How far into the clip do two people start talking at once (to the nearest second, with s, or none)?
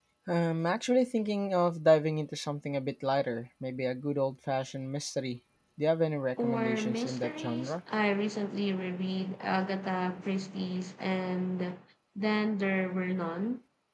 6 s